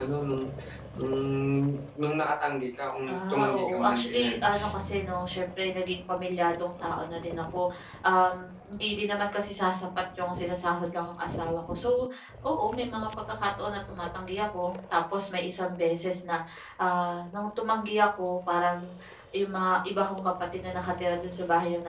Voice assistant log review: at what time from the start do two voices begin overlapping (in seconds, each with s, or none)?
3.1 s